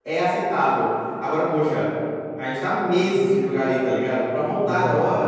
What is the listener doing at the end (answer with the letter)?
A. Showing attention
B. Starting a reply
A